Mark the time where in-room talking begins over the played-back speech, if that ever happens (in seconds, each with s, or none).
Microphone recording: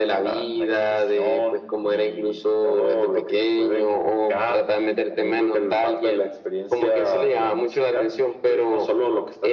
none